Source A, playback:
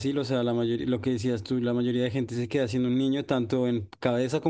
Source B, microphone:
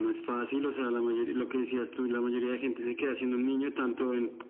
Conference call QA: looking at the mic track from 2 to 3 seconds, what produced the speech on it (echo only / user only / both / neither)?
echo only